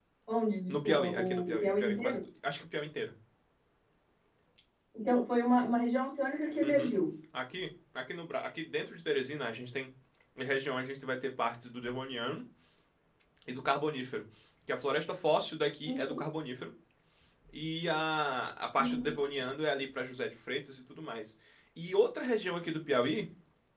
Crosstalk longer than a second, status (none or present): present